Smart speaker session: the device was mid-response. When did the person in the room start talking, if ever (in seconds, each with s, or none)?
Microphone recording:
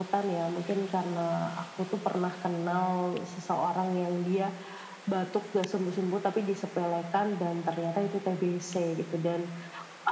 none